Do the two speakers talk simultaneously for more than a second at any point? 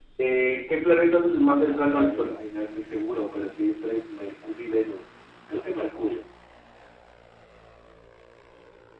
Yes, from 1.0 s

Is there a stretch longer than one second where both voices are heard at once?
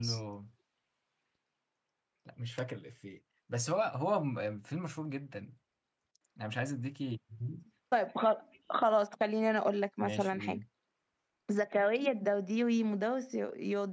No

